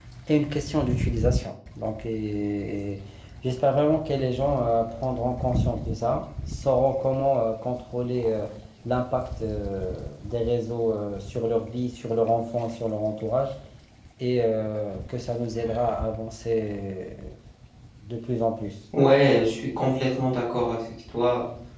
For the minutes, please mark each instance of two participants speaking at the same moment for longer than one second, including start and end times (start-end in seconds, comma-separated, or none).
none